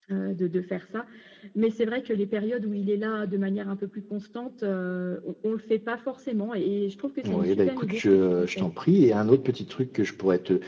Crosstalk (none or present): present